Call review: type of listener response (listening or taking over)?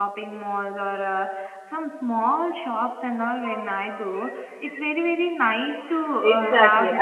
taking over